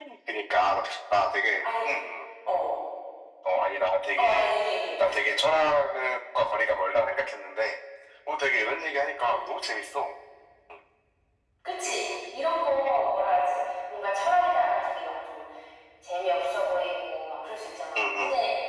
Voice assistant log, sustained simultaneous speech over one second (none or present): none